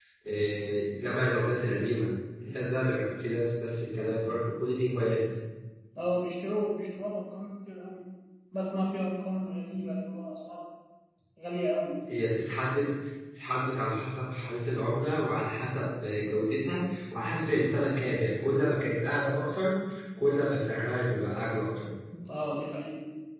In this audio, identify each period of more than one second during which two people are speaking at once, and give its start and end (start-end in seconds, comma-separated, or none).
none